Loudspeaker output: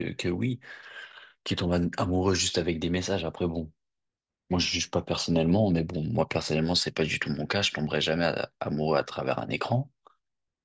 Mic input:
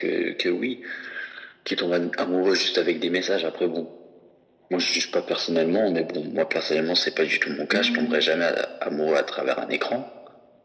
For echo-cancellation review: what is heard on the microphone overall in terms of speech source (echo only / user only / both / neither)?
both